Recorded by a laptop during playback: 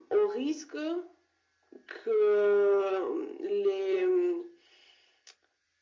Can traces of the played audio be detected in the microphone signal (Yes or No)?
Yes